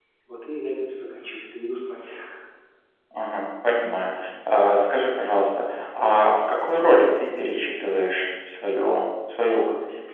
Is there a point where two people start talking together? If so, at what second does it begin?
none

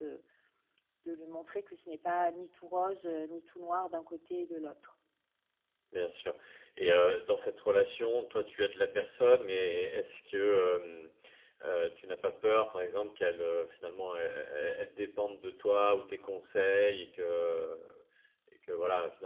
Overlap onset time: none

